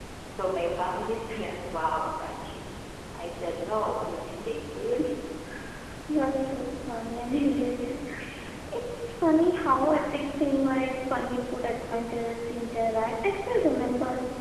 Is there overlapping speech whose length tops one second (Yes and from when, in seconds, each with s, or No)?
No